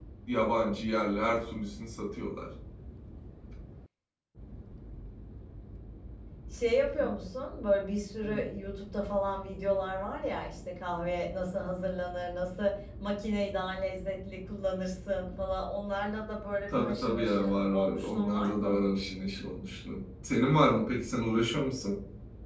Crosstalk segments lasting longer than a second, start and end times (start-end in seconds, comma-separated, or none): 16.7-18.8